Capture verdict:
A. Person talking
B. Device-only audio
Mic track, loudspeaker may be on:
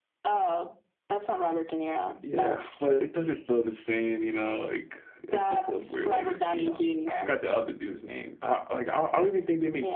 A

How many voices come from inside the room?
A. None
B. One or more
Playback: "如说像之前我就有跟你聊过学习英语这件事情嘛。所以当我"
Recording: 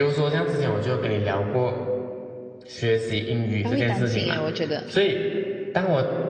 B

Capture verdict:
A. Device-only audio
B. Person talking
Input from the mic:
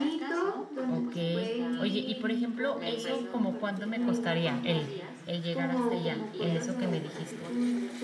B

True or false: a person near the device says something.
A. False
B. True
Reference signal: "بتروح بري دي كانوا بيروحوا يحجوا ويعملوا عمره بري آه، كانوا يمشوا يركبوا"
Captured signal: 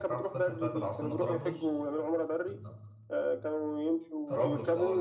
B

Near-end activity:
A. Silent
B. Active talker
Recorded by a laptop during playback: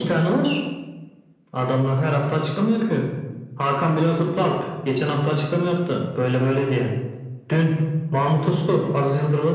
A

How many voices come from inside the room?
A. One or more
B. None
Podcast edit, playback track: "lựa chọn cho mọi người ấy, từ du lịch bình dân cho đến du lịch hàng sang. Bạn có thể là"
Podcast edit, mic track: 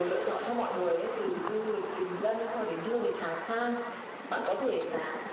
B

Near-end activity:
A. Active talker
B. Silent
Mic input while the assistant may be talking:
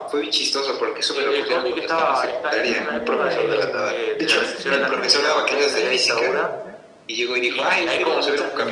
A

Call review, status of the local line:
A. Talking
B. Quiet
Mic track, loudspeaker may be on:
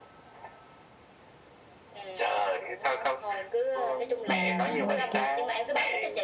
A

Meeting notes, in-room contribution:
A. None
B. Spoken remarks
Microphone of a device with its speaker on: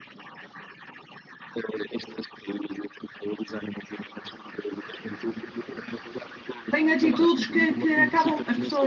B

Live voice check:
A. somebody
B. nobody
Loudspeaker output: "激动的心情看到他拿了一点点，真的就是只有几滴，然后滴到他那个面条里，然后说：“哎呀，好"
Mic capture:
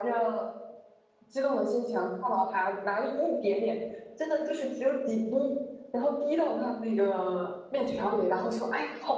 B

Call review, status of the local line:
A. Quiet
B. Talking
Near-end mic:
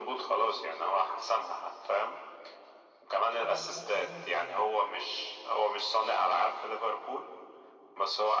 B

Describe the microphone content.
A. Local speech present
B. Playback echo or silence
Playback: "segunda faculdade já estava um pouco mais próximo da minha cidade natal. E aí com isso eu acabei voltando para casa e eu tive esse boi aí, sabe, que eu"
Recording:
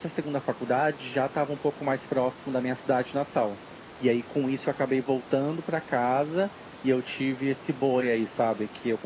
B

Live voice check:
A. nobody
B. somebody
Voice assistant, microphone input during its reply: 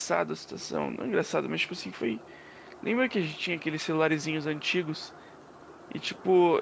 B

